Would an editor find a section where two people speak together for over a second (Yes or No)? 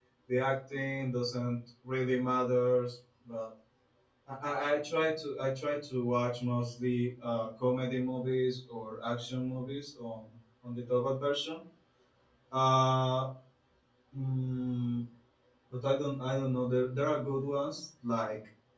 No